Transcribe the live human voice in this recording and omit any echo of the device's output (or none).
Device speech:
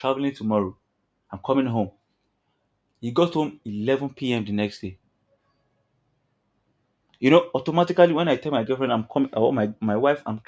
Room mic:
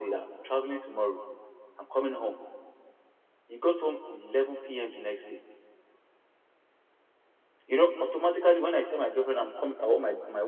none